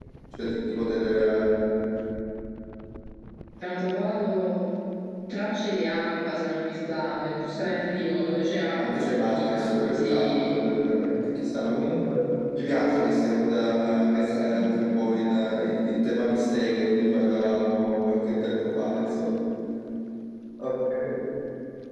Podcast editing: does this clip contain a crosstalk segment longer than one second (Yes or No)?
Yes